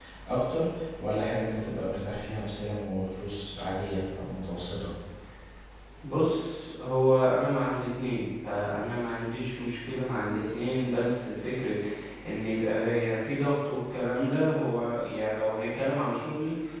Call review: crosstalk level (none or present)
none